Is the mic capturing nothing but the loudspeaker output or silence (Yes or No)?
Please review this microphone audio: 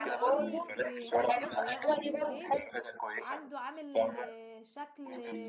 No